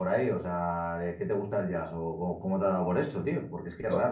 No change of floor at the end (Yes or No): Yes